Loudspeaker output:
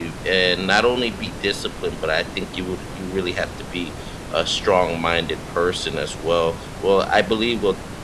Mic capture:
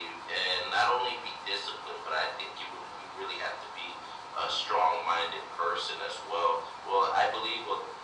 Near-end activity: none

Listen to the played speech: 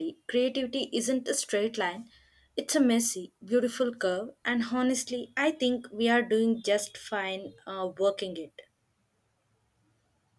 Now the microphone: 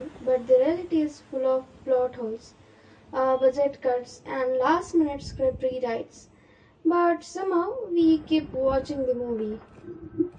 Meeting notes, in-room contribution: present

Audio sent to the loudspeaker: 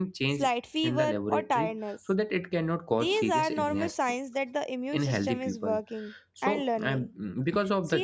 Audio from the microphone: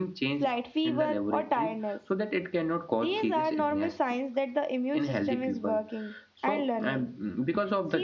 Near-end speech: none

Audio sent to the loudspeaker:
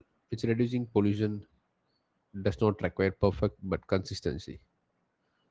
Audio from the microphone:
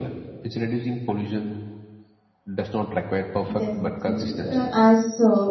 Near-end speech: present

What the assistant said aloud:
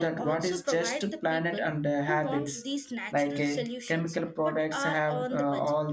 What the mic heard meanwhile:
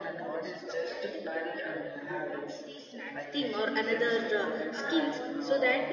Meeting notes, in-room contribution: present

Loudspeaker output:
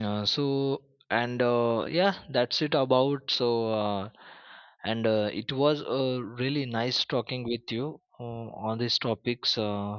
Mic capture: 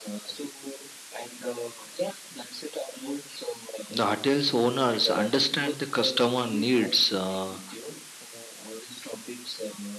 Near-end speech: present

